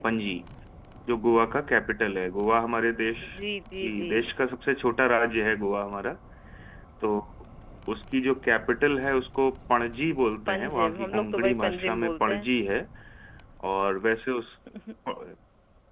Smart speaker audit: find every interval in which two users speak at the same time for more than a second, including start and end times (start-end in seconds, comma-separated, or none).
10.5-12.5